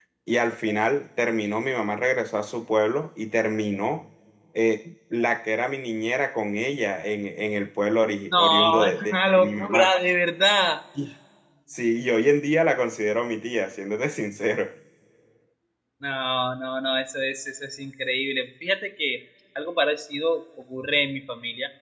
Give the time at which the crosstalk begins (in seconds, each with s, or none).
8.3 s